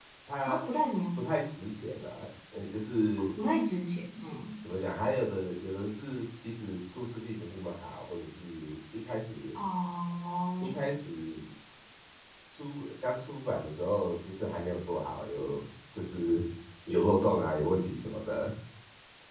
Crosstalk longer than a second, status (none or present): none